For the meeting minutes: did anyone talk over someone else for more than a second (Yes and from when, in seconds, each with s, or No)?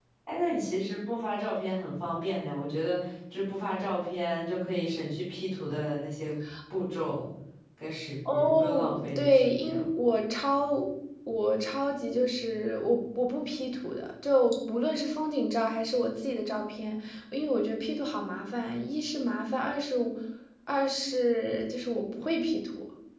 Yes, from 8.3 s